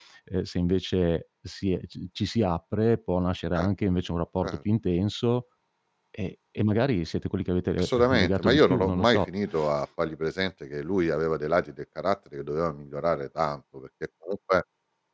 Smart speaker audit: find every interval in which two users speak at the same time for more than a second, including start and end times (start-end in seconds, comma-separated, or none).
7.8-9.3